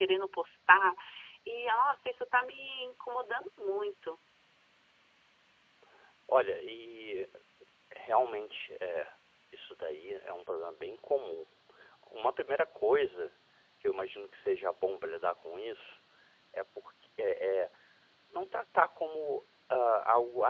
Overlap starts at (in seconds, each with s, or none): none